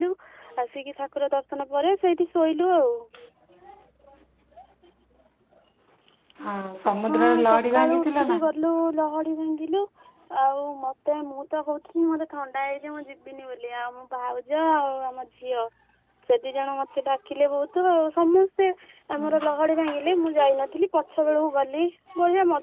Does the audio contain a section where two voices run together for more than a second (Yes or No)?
Yes